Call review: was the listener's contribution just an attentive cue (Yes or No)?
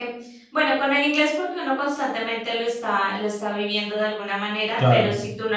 Yes